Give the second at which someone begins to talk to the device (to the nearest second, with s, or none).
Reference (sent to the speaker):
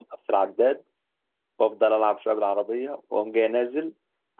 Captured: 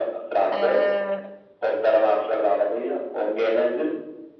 1 s